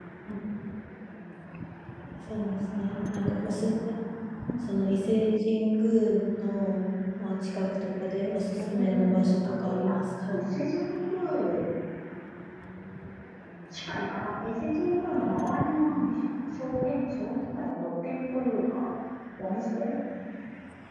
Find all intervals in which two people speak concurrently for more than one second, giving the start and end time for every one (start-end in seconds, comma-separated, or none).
8.5-10.4